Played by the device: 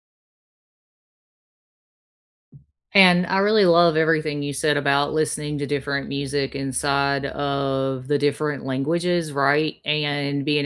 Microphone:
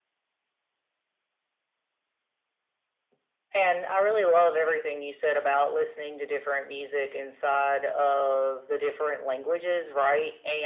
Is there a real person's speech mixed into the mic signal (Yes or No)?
No